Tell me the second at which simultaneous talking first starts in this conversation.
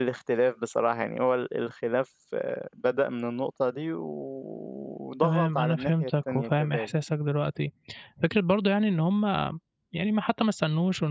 5.2 s

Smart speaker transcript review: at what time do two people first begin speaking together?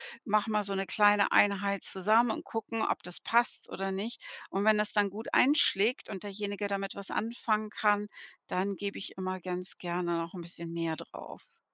none

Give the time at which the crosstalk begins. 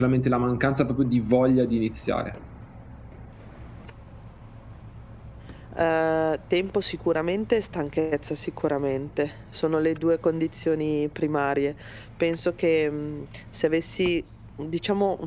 none

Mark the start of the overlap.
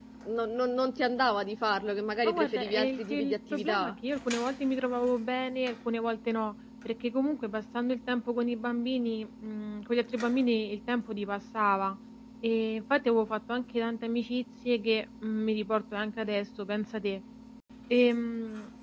2.2 s

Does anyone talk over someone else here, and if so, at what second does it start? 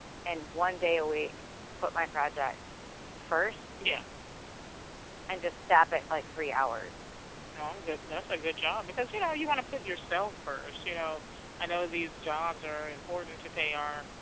none

